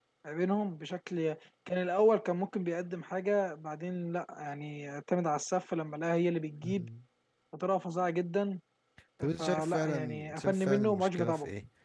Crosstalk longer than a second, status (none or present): present